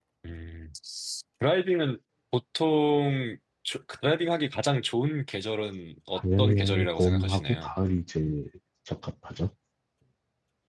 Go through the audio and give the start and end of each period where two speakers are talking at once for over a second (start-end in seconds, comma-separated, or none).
6.2-7.7